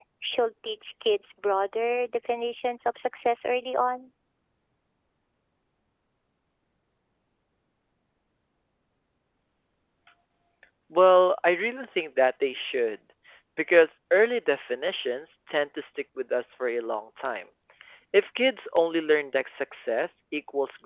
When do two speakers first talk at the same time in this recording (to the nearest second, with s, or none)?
none